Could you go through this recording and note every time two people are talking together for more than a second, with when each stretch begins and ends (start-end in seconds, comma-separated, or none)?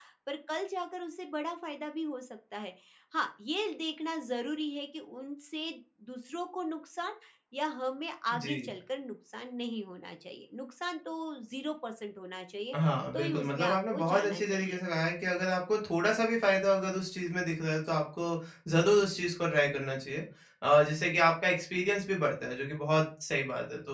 13.1-14.8